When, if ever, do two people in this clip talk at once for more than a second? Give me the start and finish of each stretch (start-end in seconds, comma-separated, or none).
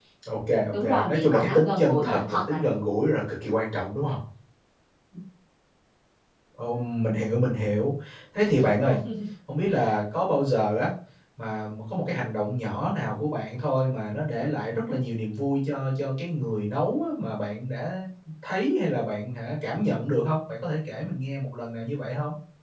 0.7-2.8